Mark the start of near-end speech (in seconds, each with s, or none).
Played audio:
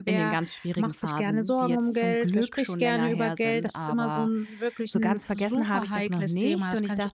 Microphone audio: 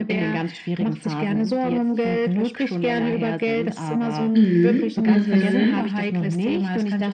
4.3 s